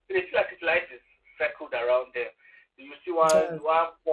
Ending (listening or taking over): listening